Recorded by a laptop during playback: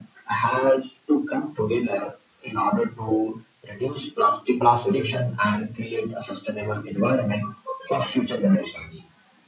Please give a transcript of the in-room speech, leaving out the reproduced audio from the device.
plastic

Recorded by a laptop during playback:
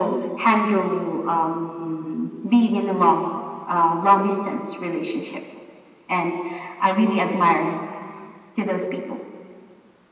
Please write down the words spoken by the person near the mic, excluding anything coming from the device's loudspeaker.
none

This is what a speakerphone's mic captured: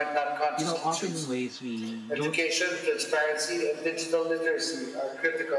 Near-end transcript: you know, often in ways we don't

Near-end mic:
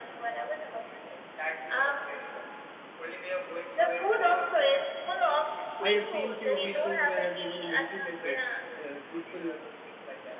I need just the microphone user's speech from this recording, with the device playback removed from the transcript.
I have seen few peoples where even the military peoples, uh, people

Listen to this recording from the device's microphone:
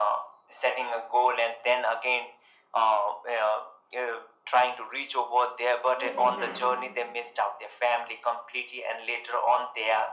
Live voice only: yes, exactly,

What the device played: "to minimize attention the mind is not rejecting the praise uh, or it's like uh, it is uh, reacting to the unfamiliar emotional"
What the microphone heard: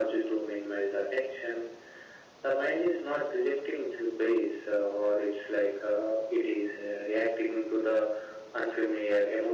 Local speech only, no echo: none

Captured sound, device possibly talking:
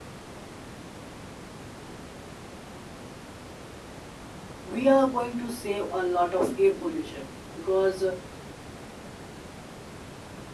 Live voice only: we are going to save a lot of air pollution because uh,

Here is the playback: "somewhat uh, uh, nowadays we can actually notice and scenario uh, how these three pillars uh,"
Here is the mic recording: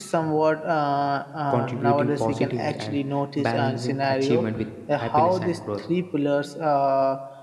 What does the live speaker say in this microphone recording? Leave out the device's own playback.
contributing positively, and balancing achievement with happiness and growth.

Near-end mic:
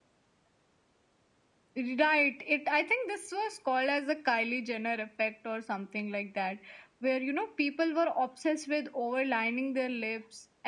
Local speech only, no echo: none

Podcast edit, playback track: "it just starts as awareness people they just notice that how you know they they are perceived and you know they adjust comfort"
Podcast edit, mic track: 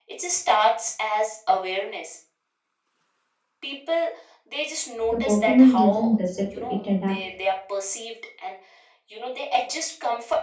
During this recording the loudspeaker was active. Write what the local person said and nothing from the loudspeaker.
the performance doesn't disappear, it adapts.

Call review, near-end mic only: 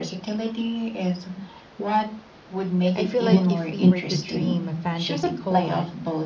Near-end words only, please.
I feel like if we were to dream a fantasy collab,

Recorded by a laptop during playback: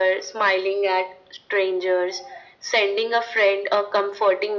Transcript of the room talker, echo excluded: none

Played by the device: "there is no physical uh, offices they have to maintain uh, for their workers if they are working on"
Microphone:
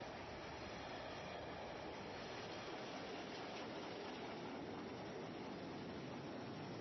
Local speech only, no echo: none

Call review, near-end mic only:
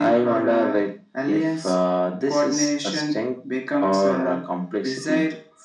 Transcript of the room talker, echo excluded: none

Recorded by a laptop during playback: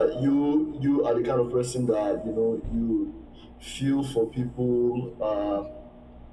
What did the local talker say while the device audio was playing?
none

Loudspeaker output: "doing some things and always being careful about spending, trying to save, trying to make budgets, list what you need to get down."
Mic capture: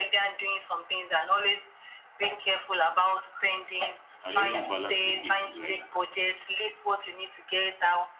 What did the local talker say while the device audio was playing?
and even balance with it, like

